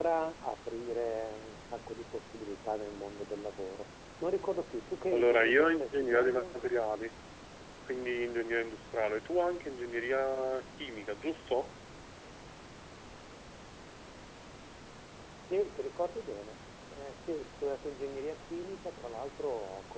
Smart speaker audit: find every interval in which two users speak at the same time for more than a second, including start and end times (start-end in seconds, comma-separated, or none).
5.1-6.6